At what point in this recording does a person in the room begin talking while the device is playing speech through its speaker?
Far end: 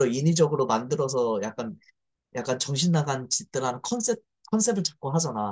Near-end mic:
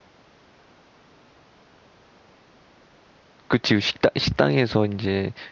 3.5 s

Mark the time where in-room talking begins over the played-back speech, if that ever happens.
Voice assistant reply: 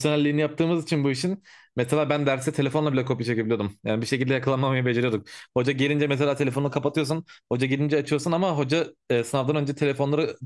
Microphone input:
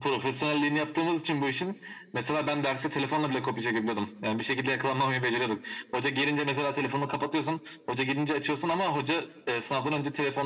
none

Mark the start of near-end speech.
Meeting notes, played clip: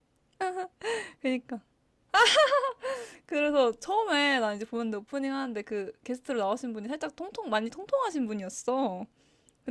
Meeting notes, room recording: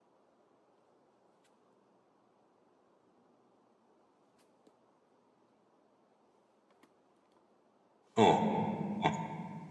8.2 s

